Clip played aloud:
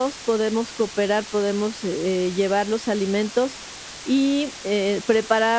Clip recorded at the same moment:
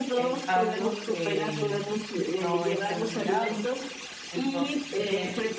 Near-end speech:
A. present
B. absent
A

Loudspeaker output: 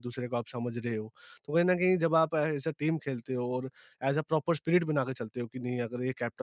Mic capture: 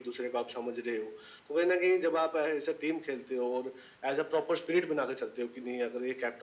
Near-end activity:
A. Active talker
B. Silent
B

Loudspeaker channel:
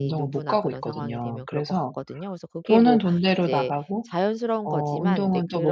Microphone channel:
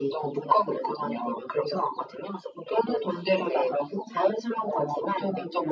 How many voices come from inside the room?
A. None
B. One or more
A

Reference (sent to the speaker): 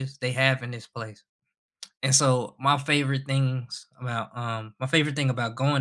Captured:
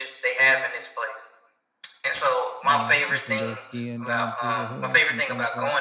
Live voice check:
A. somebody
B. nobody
A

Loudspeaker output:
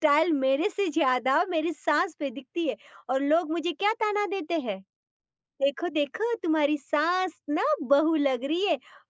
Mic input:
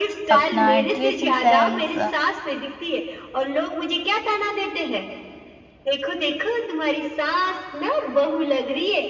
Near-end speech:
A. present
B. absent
A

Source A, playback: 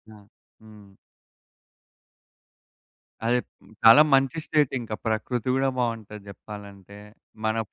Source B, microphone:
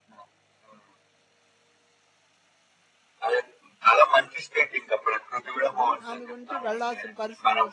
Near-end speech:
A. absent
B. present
B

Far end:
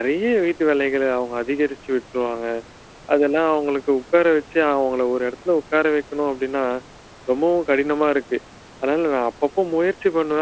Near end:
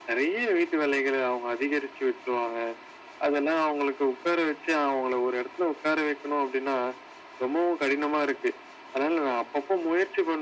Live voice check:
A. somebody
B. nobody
B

